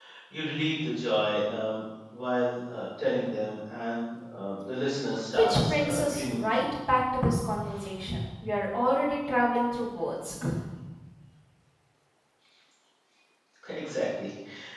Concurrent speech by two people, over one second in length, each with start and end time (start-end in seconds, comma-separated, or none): 5.4-6.6